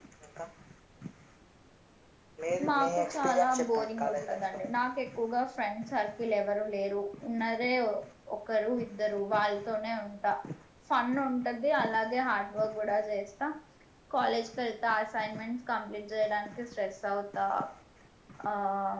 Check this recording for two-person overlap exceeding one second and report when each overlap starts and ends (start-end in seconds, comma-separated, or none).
2.7-4.6